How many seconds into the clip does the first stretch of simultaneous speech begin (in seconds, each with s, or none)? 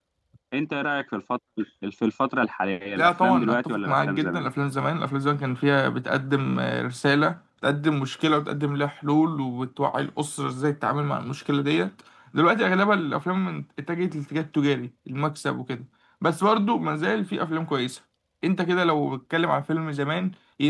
3.0 s